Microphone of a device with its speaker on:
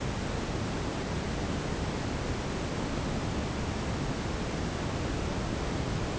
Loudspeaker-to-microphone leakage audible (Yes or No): No